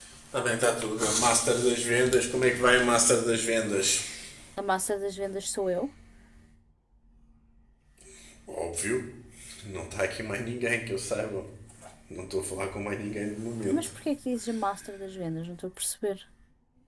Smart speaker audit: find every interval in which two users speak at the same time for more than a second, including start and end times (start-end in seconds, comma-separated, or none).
none